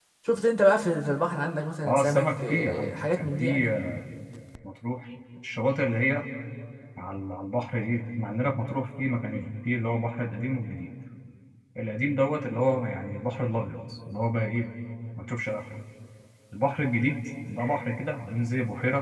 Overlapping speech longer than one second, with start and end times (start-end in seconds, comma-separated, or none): 1.9-3.7